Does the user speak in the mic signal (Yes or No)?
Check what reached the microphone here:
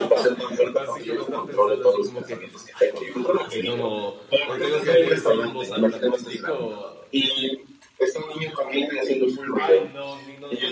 Yes